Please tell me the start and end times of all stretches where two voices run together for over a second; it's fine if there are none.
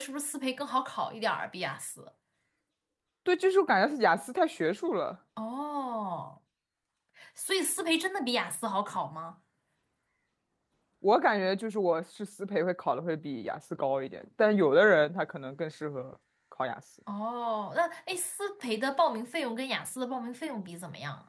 none

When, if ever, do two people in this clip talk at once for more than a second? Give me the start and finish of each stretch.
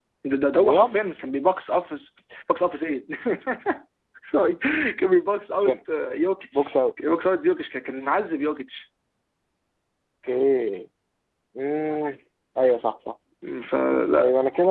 none

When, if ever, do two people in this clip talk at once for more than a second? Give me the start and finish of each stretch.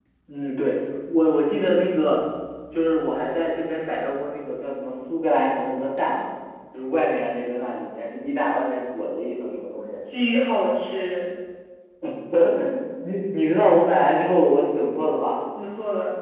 none

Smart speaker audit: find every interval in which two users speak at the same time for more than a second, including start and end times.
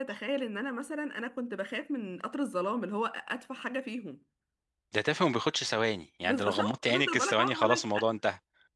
6.2-7.8

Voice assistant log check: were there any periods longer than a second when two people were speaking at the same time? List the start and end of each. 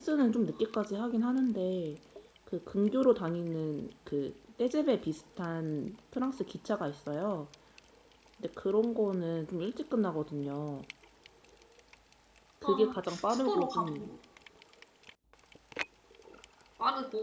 12.6-14.1

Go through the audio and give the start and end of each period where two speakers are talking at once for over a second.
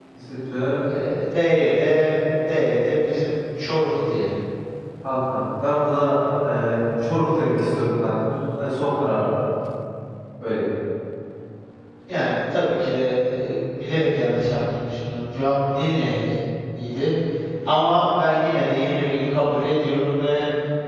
none

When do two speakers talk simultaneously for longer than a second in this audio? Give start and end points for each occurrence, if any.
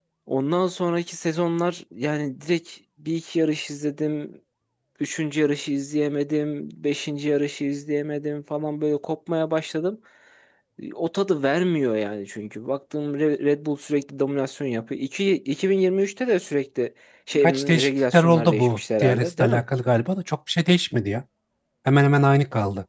17.4-19.6

